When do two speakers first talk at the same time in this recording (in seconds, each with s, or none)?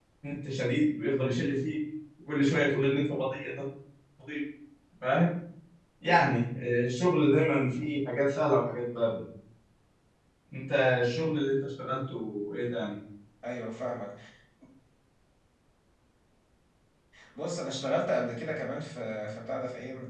none